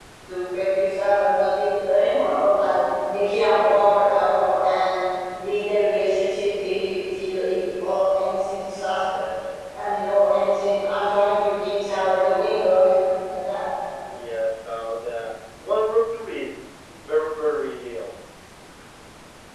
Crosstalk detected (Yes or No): No